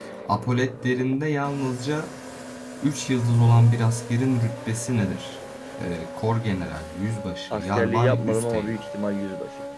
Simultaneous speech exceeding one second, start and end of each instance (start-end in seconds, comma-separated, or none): 7.5-8.8